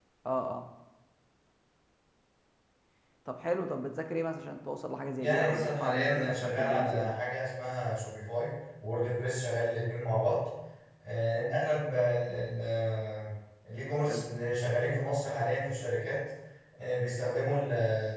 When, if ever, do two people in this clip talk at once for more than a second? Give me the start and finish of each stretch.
5.2-7.2

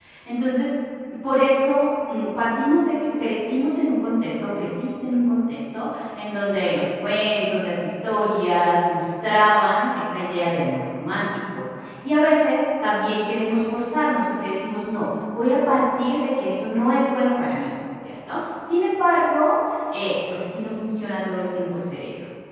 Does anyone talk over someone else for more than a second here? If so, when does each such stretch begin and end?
none

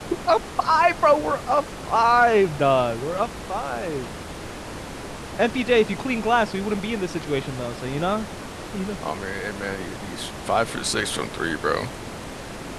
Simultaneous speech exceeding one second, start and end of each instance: none

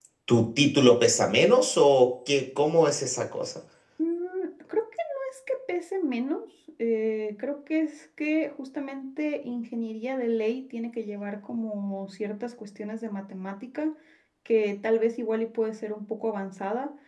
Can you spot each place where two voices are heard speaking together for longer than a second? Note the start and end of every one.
none

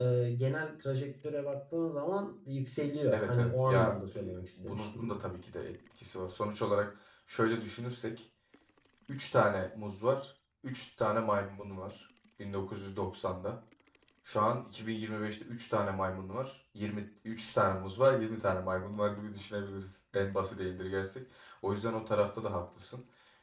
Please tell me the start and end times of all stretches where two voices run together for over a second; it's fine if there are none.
3.1-5.0

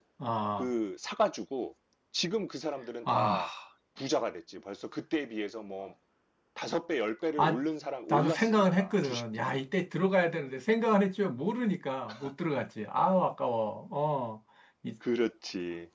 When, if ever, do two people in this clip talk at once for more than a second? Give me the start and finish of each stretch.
8.1-9.6

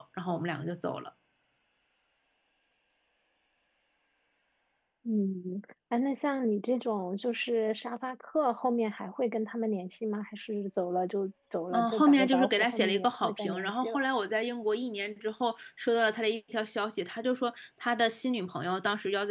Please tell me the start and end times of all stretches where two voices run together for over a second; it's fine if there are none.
11.7-14.0

